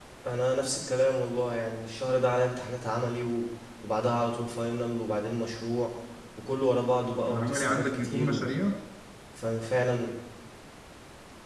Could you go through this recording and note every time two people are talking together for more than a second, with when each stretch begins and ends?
7.3-8.6

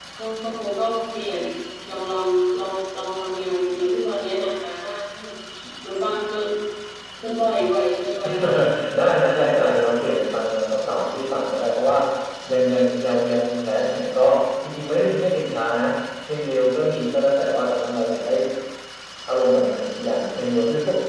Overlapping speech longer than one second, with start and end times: none

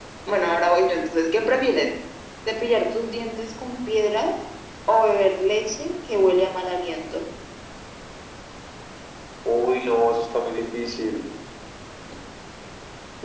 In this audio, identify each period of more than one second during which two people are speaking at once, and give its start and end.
none

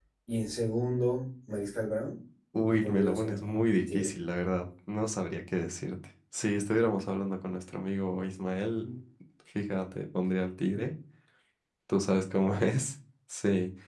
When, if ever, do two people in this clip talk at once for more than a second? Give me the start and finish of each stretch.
2.7-4.1

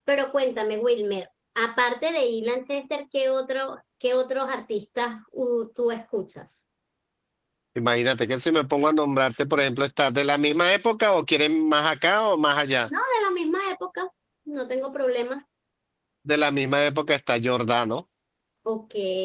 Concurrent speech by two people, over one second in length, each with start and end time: none

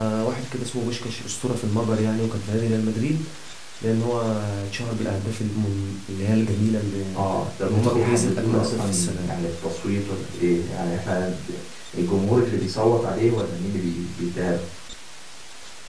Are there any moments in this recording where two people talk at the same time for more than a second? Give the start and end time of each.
7.7-9.3

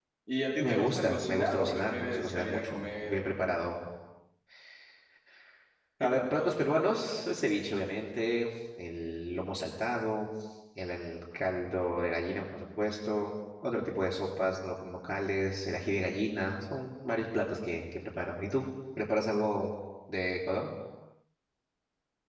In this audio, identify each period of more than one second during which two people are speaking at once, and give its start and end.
0.6-3.2, 6.0-7.6

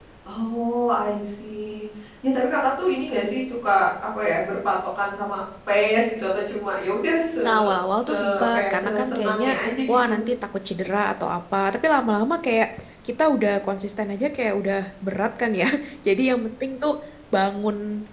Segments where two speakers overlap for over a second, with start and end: 8.1-9.5

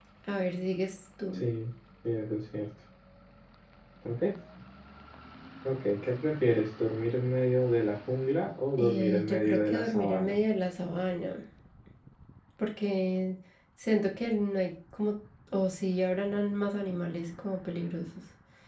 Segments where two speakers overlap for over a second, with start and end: 8.7-10.3

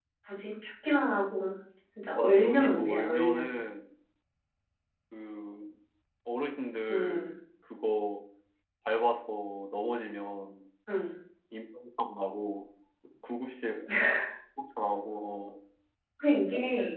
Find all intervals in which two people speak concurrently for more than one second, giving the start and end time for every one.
2.2-3.5

